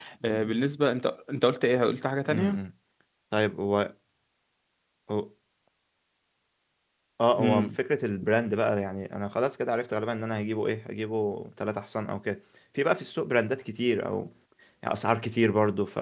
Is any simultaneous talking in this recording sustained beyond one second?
No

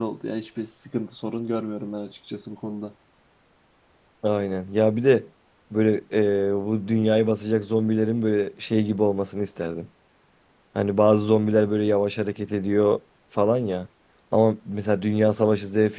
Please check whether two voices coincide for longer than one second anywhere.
No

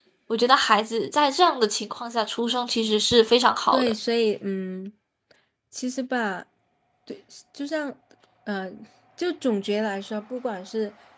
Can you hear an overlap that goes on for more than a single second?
No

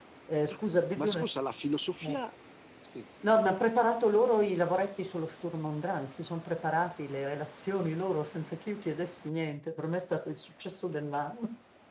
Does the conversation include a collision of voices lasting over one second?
No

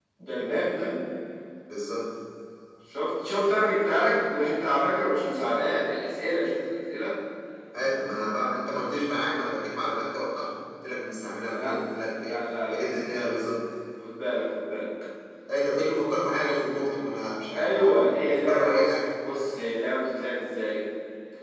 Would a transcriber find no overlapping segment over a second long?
No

